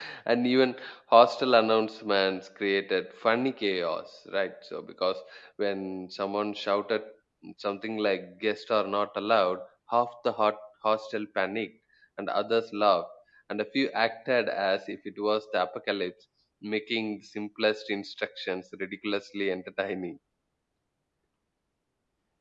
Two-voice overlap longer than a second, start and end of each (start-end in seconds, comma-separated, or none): none